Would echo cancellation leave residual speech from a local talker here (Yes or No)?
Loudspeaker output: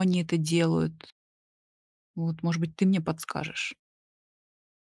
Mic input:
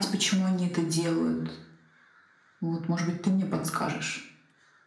No